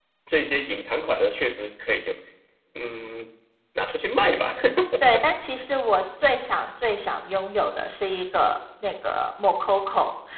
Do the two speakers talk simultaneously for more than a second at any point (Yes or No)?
No